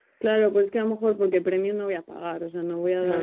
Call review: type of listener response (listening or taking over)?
listening